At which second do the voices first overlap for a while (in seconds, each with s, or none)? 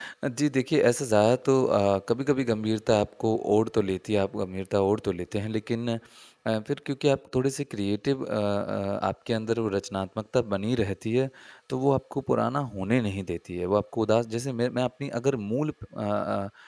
none